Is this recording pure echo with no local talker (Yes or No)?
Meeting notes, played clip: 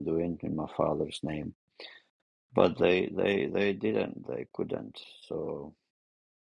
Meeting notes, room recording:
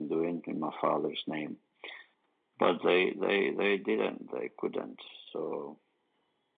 Yes